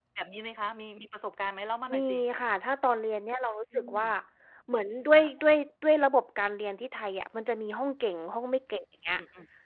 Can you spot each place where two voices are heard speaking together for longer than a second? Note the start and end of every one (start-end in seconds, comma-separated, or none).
none